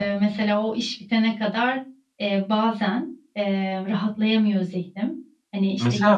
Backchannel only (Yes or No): No